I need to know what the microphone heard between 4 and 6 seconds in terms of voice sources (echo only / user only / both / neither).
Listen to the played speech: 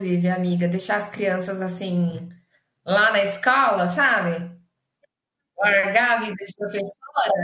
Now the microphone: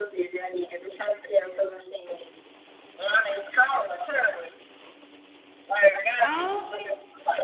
echo only